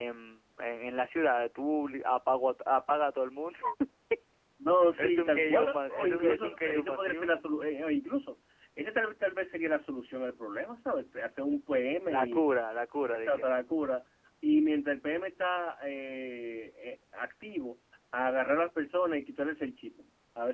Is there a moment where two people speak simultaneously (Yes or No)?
Yes